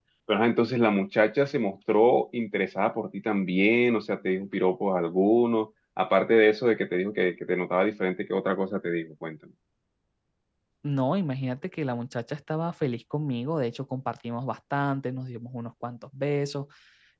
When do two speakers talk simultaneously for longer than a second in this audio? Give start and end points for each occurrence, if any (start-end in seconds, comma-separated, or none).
none